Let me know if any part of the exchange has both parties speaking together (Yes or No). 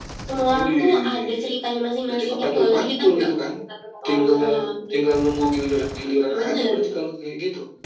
Yes